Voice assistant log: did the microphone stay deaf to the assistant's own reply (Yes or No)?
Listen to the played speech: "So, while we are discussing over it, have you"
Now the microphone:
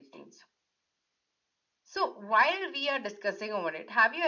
No